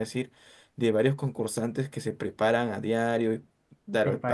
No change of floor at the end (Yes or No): Yes